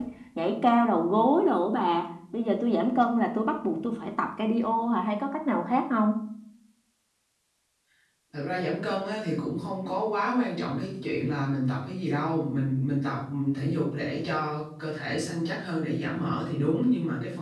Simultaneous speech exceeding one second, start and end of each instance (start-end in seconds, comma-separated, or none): none